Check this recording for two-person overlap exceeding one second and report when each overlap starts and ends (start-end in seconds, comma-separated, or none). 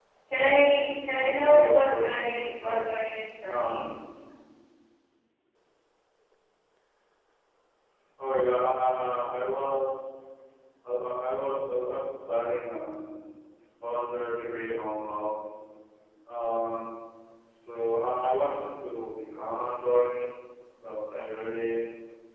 0.7-2.9